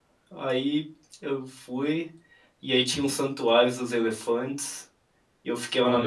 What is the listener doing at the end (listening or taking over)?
taking over